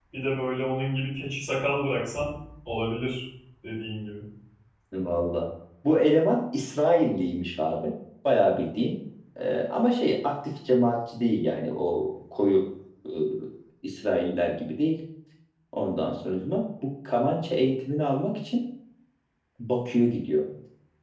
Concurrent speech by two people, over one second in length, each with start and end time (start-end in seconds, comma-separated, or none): none